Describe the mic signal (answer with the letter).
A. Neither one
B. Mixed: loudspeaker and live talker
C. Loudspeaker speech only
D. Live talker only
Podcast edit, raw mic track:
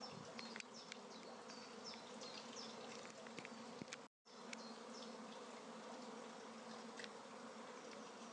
A